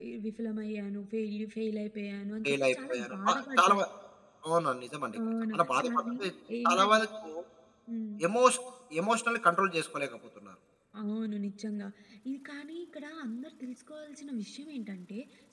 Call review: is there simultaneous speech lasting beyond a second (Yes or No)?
Yes